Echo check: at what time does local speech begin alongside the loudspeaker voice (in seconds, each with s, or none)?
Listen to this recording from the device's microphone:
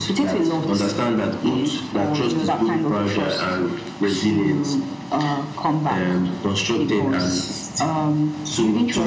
none